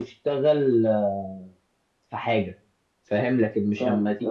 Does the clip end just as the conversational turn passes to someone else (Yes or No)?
No